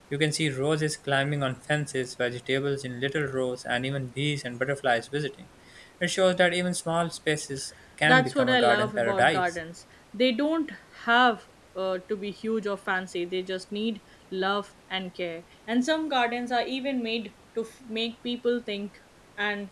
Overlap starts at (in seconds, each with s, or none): 8.1 s